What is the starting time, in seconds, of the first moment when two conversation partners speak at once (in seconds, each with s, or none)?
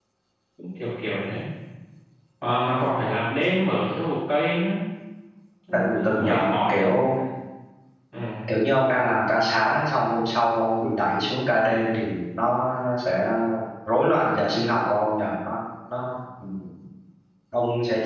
5.7 s